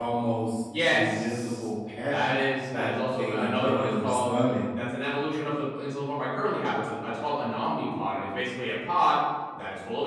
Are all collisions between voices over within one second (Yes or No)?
No